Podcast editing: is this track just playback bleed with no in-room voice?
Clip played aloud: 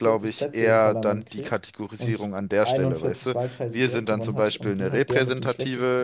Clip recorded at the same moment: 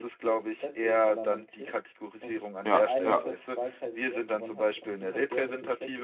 No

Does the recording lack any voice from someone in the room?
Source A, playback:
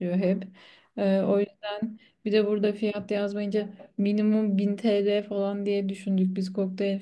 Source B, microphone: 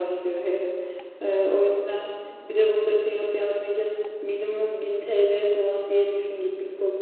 Yes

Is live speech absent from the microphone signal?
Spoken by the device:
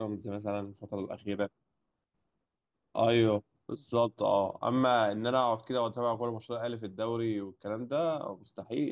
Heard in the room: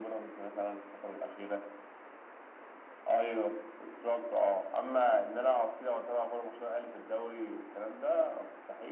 Yes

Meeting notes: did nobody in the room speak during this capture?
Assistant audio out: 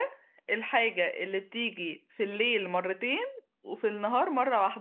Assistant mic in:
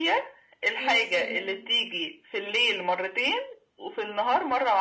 No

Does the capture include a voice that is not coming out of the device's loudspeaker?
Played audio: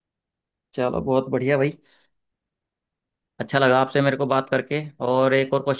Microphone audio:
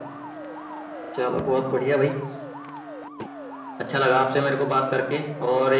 No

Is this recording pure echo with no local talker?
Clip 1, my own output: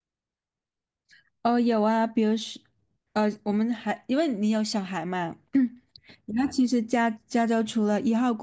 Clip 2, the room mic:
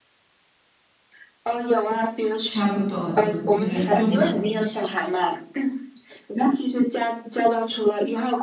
No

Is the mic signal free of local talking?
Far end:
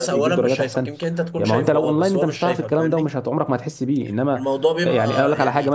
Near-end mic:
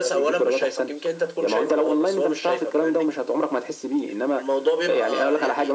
Yes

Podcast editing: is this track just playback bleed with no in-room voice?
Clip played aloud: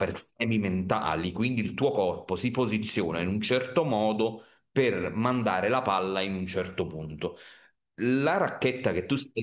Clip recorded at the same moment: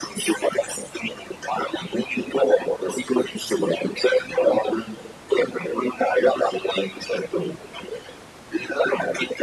Yes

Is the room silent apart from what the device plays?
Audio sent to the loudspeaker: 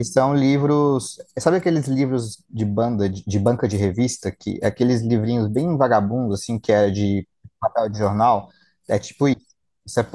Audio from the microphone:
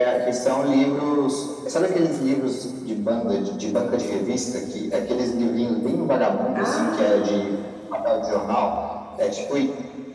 No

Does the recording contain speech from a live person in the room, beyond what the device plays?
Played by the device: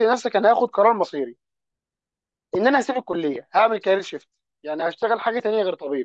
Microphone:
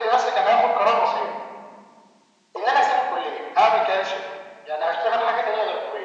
No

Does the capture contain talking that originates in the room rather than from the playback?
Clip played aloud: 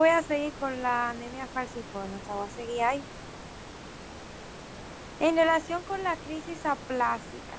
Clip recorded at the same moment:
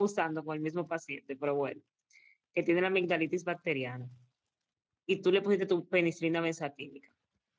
Yes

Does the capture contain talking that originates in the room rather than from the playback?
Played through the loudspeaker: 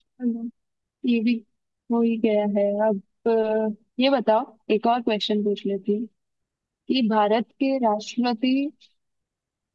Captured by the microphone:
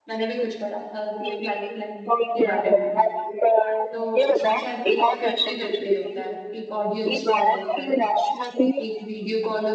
Yes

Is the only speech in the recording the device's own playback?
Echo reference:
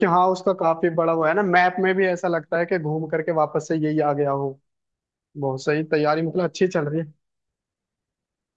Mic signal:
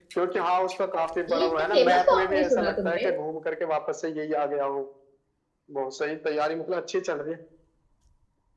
No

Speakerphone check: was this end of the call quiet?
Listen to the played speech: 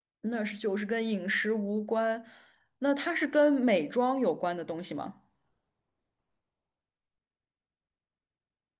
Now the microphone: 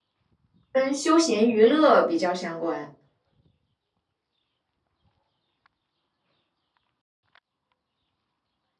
No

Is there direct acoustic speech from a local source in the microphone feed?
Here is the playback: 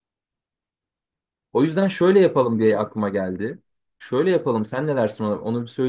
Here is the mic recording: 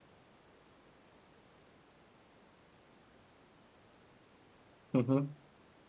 Yes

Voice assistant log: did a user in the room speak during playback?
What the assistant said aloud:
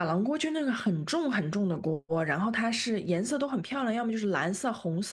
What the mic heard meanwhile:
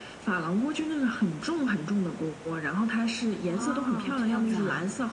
Yes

